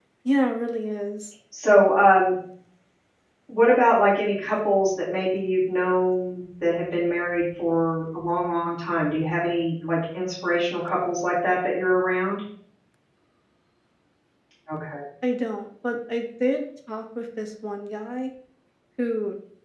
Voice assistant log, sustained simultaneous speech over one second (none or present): none